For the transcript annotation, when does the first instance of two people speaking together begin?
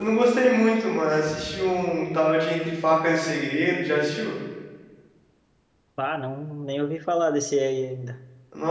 none

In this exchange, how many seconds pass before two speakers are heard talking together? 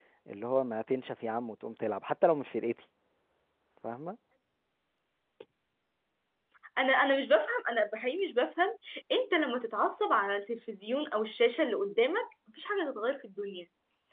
none

